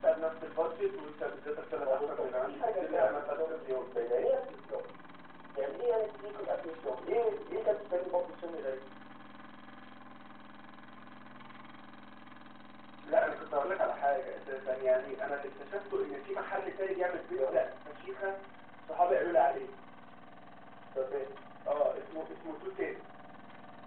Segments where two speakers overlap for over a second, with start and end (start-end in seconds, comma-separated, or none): 1.9-3.9